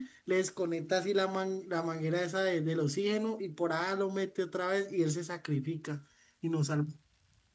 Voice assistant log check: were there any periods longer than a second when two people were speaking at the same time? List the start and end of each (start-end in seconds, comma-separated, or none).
none